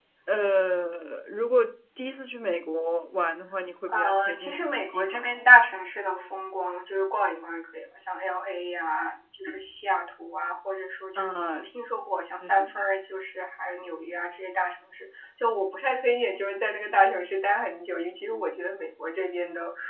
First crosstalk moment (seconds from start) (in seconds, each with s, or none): 3.9 s